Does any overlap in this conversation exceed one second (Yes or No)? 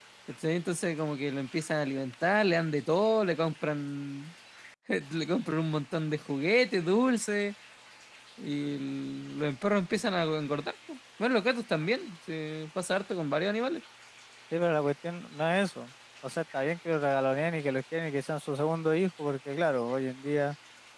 No